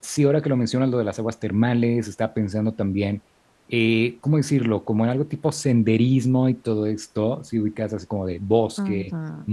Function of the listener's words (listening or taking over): listening